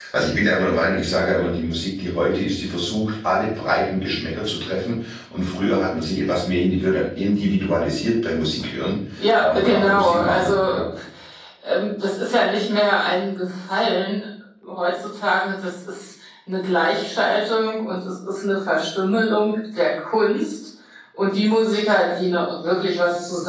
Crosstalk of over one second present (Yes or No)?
Yes